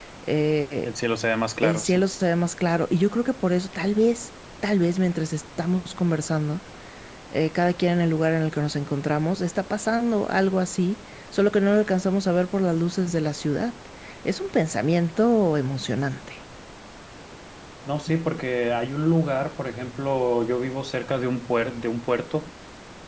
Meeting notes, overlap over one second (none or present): none